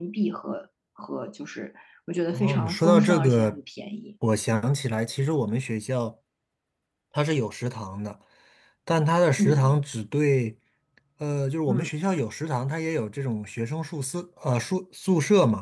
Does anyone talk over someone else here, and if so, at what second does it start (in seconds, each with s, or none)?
2.3 s